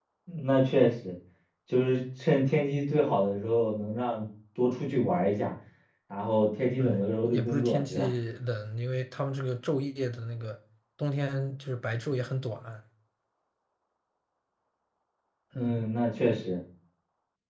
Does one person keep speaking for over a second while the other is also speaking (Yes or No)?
Yes